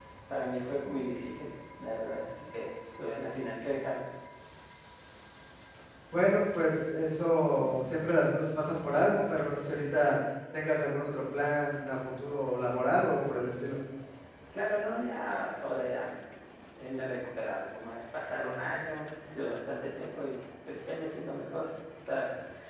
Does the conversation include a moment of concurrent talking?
No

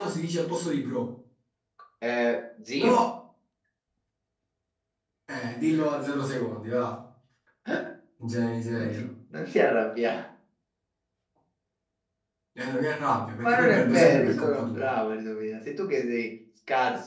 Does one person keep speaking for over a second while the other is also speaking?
Yes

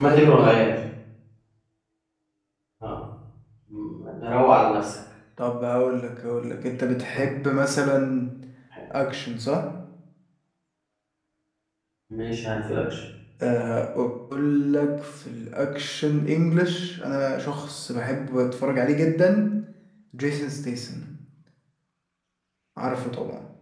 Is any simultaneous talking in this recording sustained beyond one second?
No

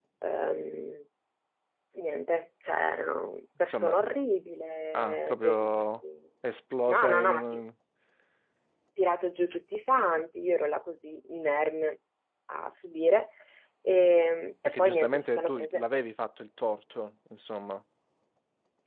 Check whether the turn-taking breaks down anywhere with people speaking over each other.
Yes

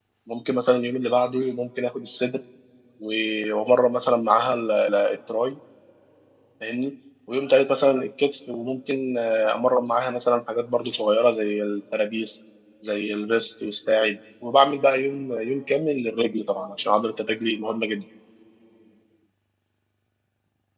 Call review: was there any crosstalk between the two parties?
No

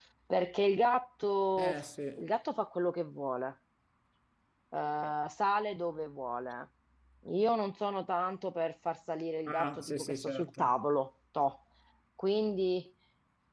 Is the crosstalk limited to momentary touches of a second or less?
No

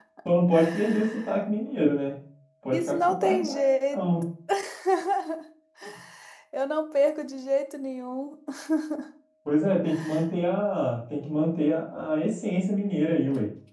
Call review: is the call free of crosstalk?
No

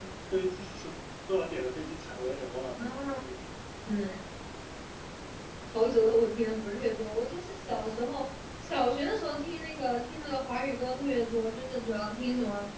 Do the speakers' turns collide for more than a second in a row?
No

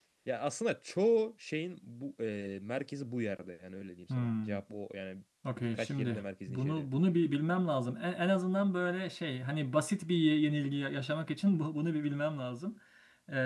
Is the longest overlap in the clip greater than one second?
Yes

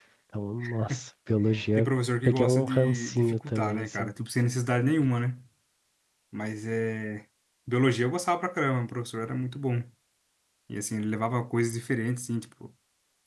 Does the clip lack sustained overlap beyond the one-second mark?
No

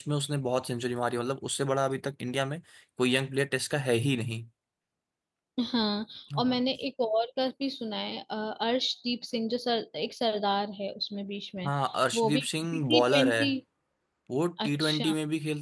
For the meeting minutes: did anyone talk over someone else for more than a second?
Yes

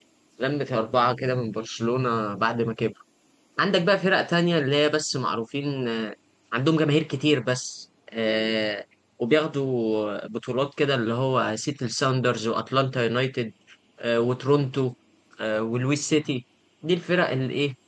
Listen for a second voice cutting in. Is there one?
No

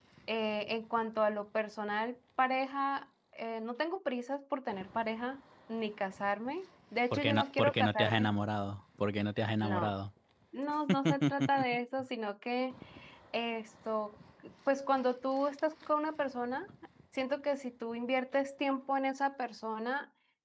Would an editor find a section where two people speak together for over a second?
Yes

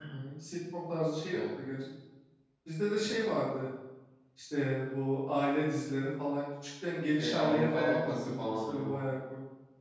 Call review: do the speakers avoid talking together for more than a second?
No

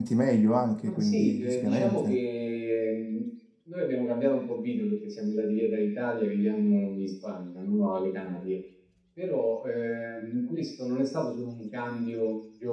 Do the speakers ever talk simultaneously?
Yes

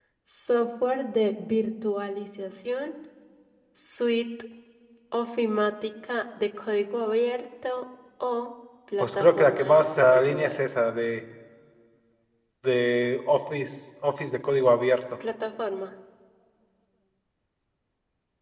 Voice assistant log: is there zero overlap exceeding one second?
No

